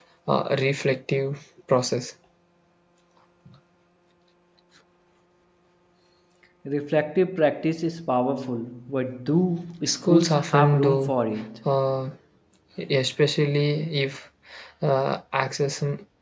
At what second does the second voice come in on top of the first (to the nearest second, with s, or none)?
10 s